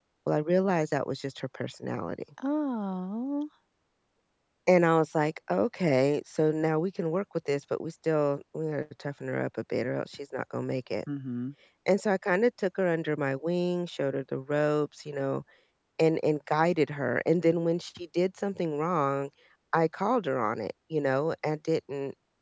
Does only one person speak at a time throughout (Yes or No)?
Yes